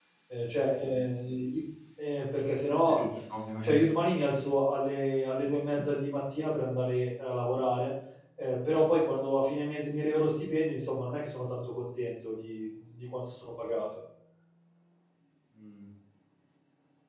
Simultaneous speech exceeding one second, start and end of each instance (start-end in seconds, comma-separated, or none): none